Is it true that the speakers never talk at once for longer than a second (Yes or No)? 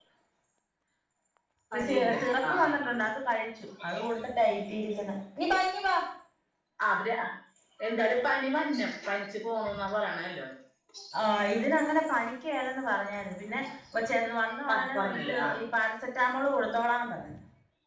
No